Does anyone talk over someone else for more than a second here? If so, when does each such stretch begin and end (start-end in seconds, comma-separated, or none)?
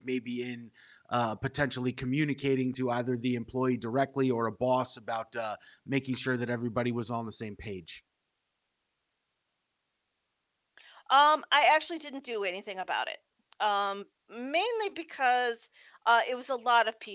none